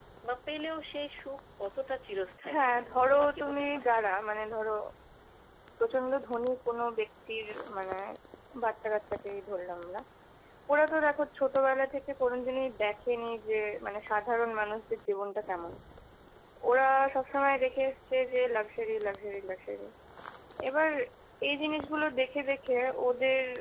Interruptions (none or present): present